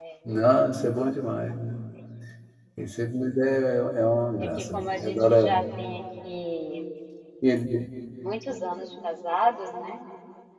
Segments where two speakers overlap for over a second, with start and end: 4.4-5.6

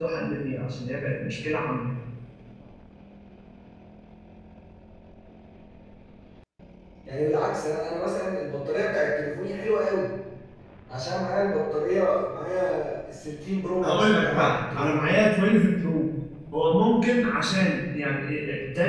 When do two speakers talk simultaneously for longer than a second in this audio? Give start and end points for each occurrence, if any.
13.8-15.2

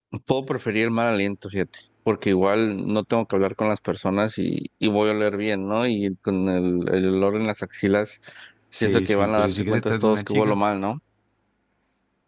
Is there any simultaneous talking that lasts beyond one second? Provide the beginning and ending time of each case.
8.8-10.6

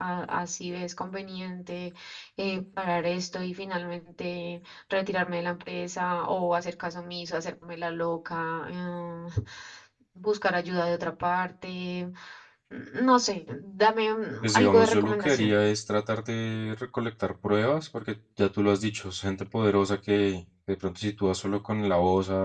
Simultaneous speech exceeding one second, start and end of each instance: 14.4-15.7

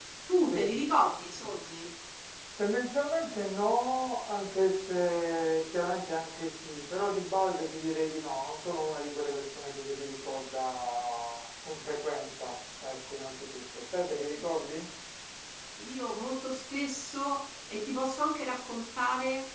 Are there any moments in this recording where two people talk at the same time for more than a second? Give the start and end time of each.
none

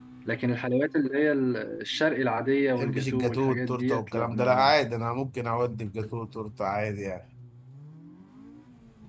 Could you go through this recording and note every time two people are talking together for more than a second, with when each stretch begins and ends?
2.8-4.8

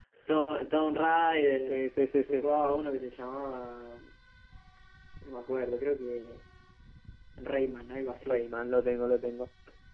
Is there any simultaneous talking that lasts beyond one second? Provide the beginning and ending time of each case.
none

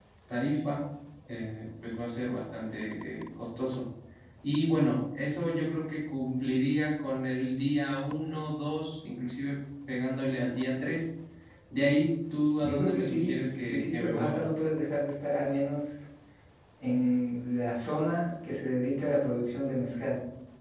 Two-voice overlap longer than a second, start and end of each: 12.6-14.4

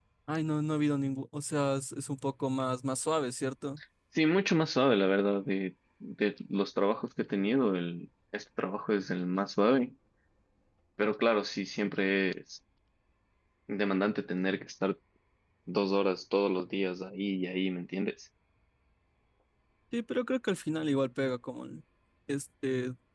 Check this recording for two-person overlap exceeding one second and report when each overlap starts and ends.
none

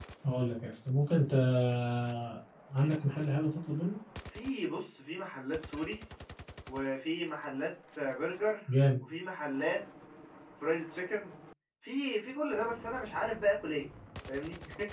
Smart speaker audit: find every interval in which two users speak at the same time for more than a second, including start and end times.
none

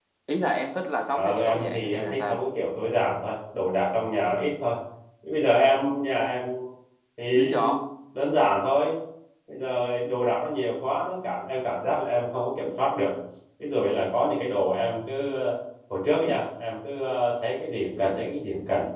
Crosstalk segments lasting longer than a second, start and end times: 1.1-2.4

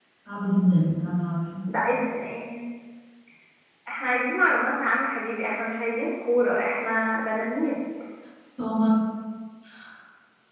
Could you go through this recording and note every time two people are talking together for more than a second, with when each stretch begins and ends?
none

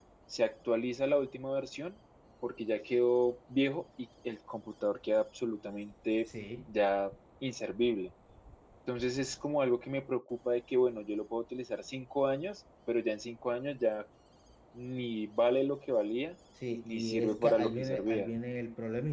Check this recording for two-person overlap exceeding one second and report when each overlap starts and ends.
16.9-18.3

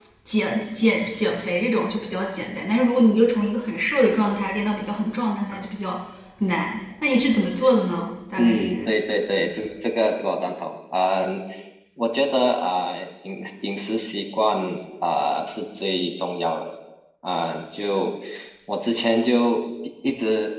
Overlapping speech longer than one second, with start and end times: none

